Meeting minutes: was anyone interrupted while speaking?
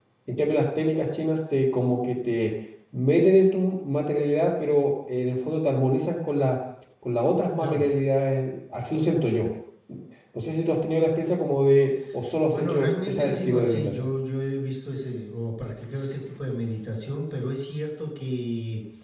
Yes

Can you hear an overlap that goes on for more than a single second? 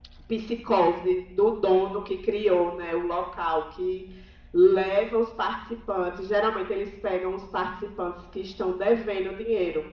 No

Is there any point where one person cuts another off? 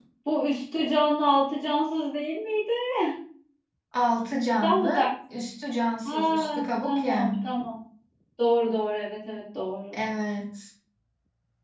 Yes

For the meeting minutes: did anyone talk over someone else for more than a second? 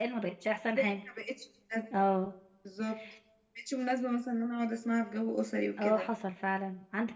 No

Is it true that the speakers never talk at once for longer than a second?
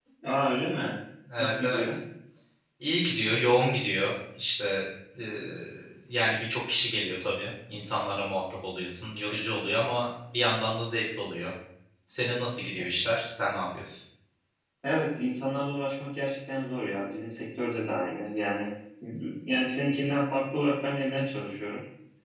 Yes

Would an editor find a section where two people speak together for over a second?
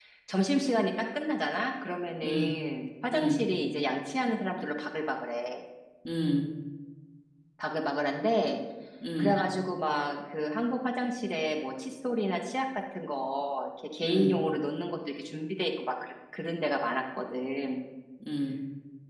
No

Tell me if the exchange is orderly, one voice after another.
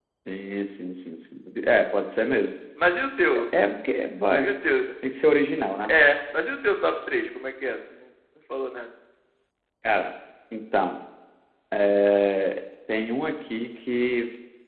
Yes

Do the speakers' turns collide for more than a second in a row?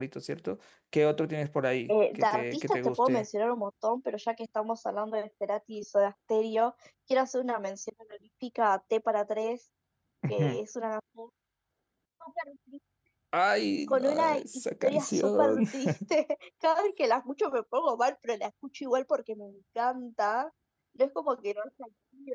Yes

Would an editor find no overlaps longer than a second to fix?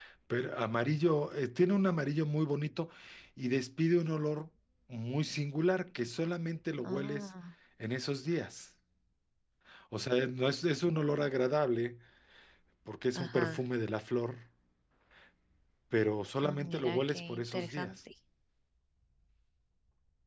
No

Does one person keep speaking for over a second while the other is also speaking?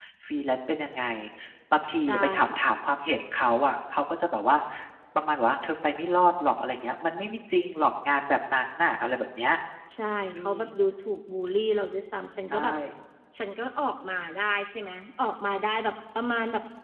No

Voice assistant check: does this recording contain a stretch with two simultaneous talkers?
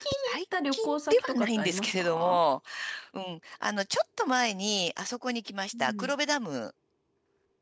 Yes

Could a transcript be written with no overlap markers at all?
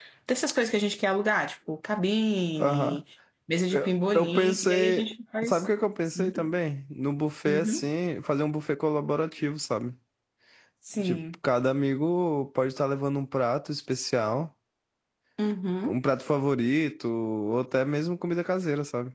No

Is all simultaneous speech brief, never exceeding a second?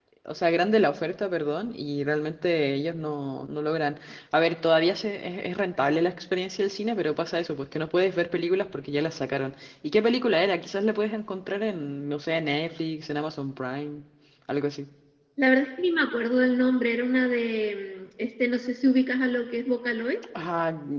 Yes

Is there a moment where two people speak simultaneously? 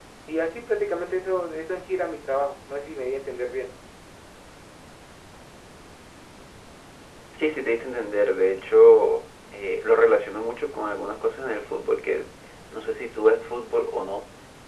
No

